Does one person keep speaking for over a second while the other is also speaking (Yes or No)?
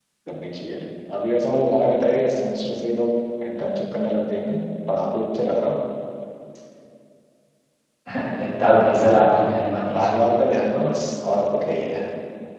No